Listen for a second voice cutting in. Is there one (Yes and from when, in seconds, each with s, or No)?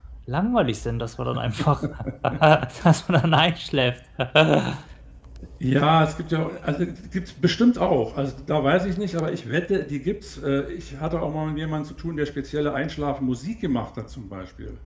No